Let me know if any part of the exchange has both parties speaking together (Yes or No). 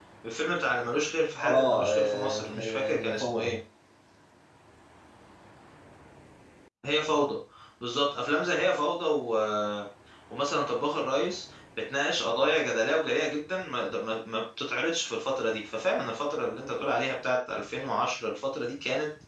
Yes